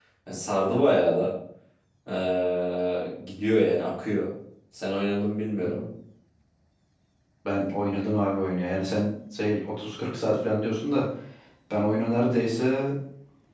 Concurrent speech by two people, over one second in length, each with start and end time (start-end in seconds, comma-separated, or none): none